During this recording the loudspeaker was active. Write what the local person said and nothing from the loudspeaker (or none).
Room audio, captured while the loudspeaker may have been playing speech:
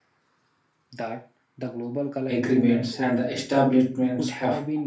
agreements and the establishments of